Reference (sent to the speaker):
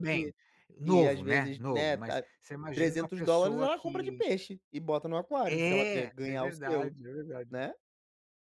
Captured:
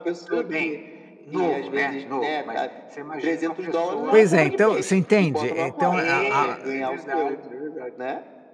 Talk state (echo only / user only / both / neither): both